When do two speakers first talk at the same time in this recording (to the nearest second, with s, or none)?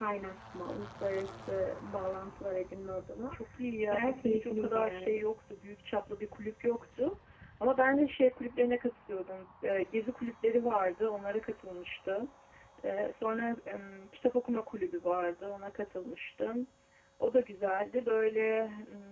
4 s